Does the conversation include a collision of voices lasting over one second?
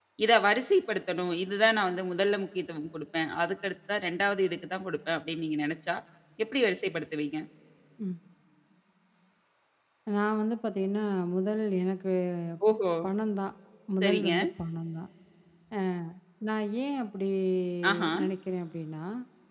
No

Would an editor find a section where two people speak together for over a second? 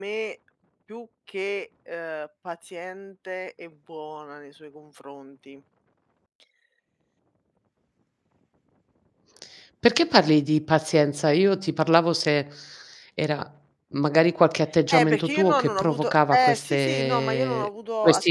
Yes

